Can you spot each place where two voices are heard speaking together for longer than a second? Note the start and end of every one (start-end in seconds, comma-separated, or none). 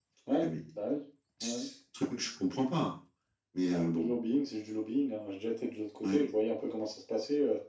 none